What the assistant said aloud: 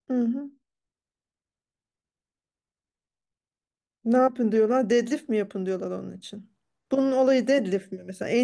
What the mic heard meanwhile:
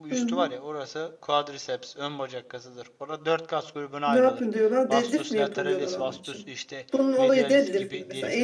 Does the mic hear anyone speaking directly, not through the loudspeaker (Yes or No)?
Yes